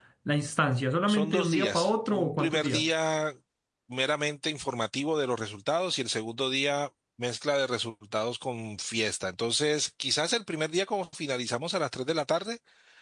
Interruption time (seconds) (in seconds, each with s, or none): 1.0 s